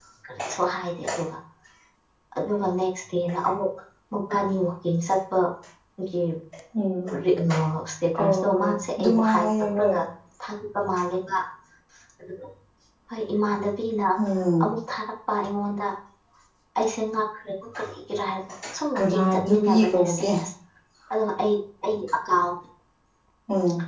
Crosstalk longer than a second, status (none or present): present